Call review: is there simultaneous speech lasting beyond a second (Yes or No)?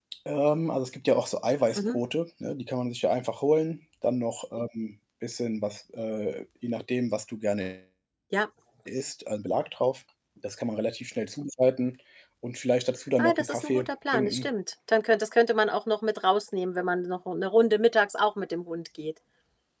Yes